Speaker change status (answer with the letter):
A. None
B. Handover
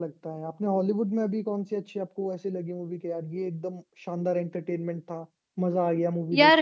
B